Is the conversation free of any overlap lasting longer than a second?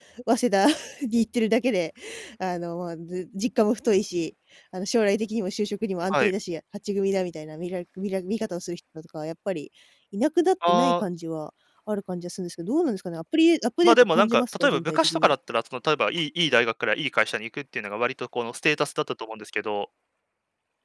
No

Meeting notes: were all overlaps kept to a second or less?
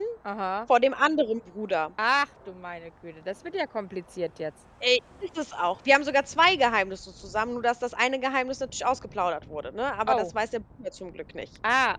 Yes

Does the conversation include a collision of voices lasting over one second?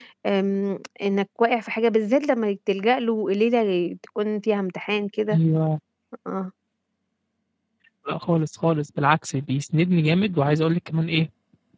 No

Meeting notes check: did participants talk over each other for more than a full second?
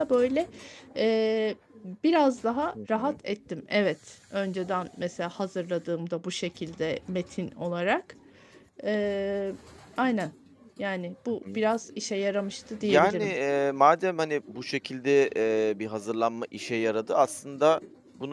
No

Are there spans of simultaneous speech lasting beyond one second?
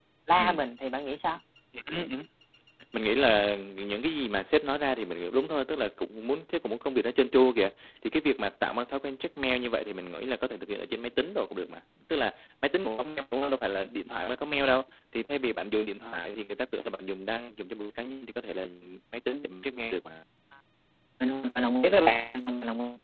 No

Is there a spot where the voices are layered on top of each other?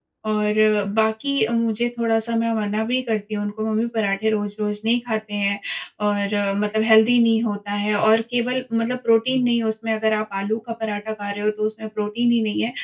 No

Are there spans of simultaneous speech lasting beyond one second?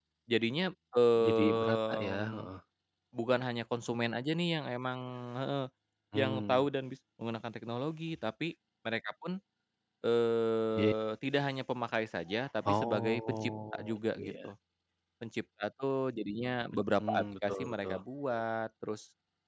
Yes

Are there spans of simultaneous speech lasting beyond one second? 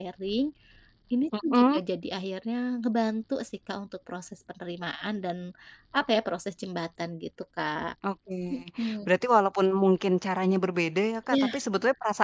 No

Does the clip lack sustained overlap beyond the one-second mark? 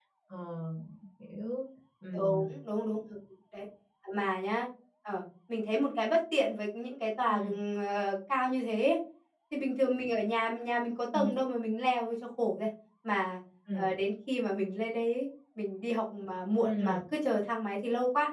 Yes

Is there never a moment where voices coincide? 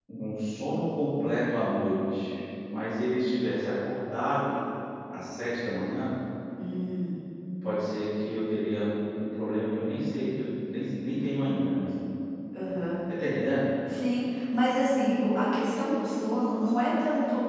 Yes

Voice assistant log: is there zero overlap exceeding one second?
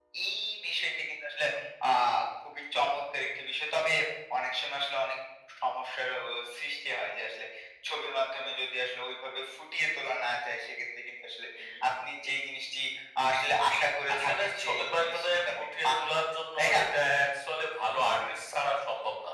No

